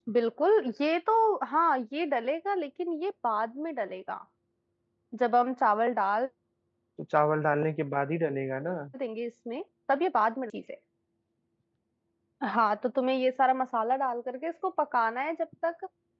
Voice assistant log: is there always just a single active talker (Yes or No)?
Yes